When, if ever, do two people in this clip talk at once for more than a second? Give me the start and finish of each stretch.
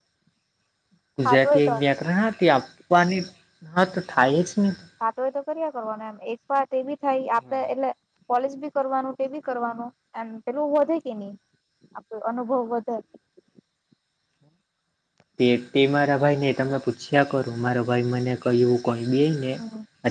none

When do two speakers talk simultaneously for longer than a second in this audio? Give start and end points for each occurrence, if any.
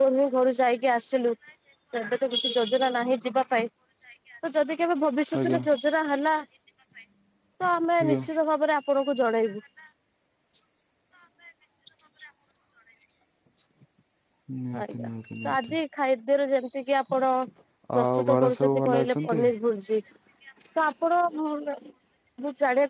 18.0-19.4

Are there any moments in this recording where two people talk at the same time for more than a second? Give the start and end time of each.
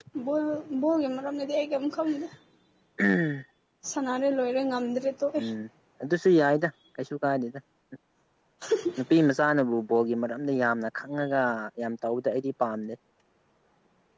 none

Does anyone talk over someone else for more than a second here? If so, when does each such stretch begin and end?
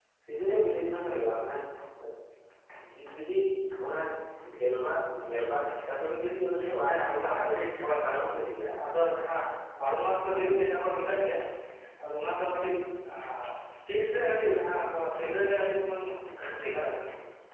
6.8-8.8

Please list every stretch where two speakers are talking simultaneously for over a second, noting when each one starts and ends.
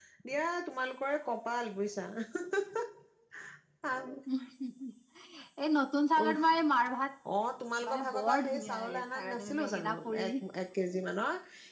7.9-10.3

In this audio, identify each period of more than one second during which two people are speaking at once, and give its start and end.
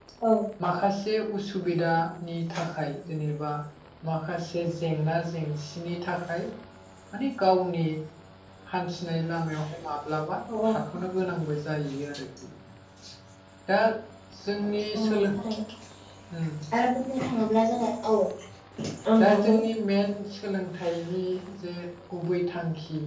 none

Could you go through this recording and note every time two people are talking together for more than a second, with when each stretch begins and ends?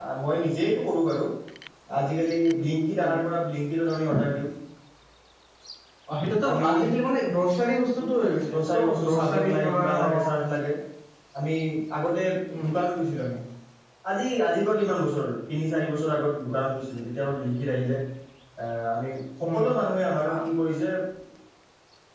8.5-10.3

